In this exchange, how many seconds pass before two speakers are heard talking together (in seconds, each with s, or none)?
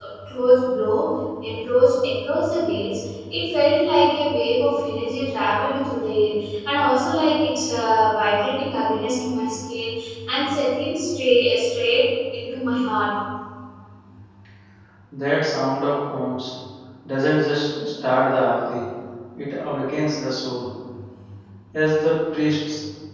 none